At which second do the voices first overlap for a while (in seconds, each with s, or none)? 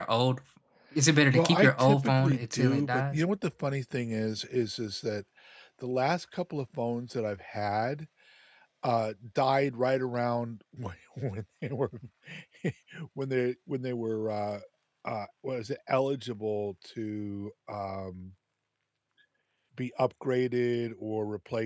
1.3 s